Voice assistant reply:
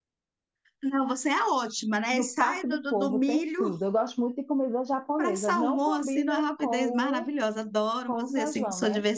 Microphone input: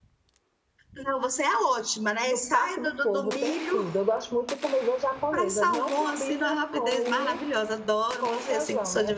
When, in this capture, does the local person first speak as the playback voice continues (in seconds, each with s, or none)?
none